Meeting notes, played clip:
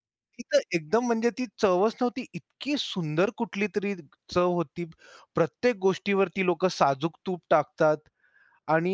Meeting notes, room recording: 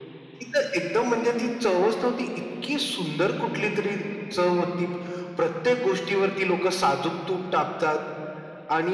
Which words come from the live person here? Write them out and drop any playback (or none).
none